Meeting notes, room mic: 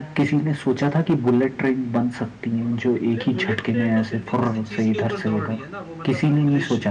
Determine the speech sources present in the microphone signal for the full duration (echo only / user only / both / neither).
both